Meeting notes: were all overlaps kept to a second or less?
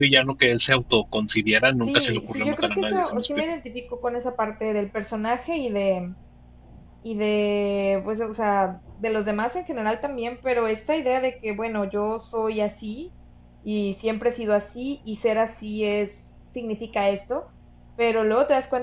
No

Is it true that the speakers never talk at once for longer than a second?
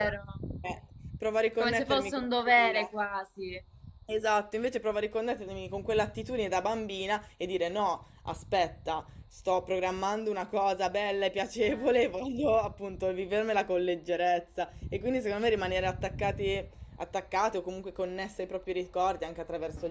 No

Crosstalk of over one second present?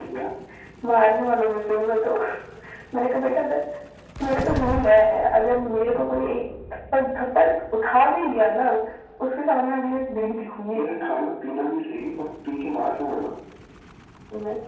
No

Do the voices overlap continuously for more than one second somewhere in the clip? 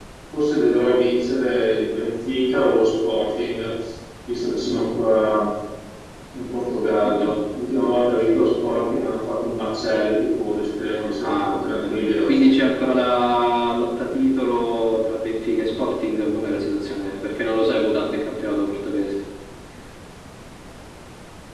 Yes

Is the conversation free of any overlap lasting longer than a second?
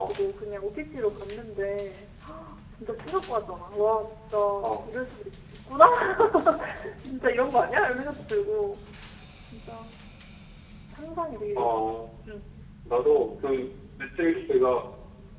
Yes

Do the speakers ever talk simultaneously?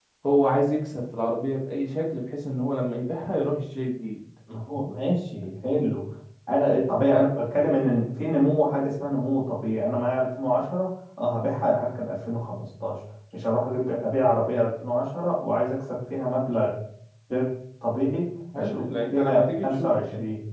Yes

